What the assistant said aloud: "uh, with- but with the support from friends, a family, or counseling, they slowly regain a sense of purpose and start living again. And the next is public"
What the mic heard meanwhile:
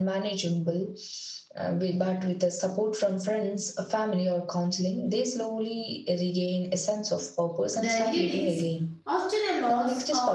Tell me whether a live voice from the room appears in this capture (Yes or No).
Yes